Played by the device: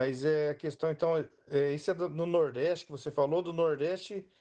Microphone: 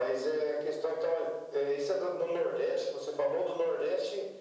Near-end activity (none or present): none